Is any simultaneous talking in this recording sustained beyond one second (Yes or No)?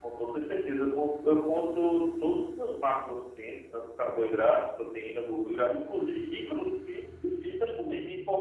No